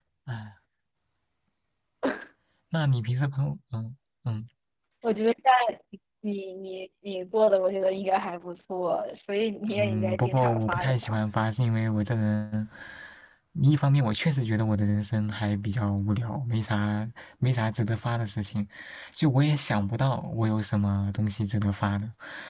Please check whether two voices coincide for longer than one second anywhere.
Yes, from 9.7 s

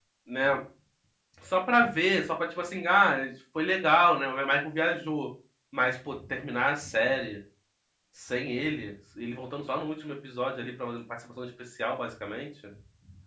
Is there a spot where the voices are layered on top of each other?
No

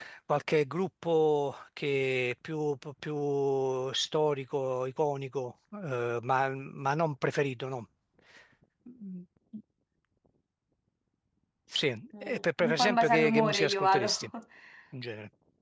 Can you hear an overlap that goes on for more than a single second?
Yes, from 12.2 s

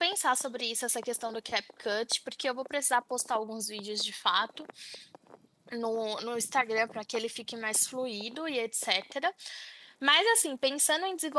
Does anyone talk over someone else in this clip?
No

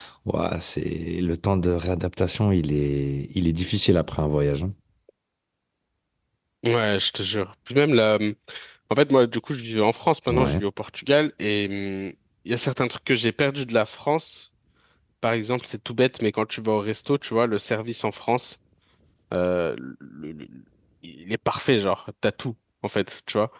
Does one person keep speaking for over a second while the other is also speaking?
No

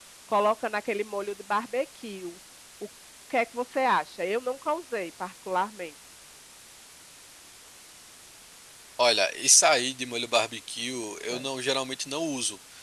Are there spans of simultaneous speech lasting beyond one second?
No

